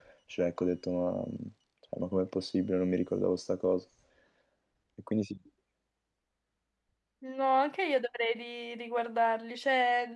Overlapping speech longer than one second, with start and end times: none

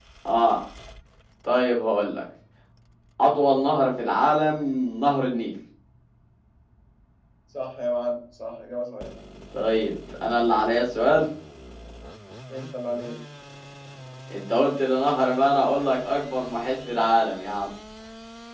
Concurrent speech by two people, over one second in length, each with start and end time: none

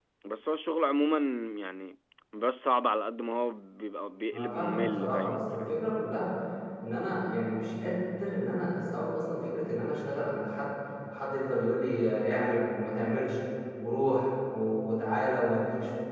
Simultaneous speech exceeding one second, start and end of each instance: 4.3-5.8

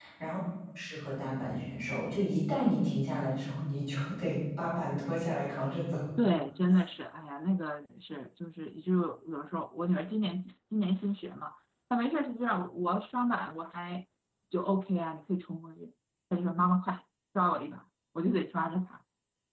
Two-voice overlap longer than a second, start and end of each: none

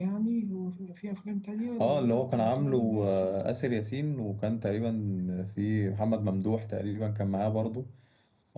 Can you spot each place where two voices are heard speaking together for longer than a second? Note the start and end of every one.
1.8-3.5

